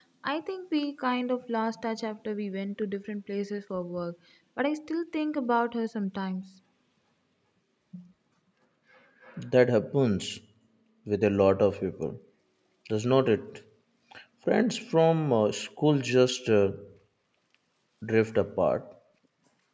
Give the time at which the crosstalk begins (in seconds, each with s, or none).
none